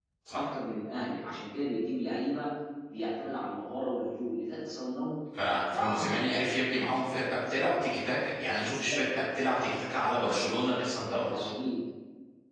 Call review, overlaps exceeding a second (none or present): none